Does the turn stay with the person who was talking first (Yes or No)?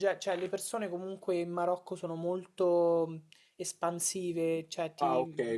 No